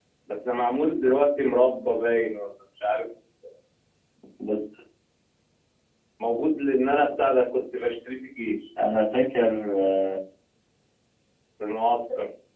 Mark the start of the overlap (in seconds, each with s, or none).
none